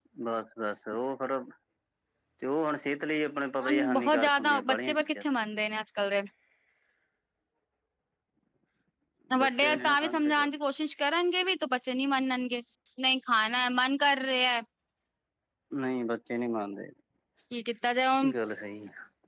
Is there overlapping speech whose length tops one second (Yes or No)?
Yes